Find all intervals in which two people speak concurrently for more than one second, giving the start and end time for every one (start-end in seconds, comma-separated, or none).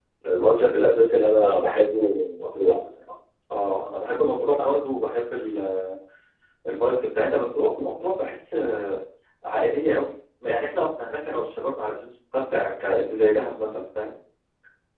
none